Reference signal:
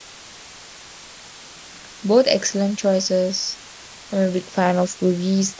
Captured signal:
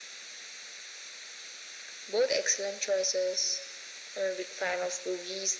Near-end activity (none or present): none